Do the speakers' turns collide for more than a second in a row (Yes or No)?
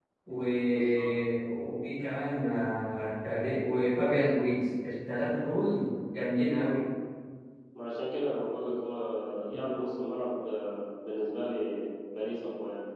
No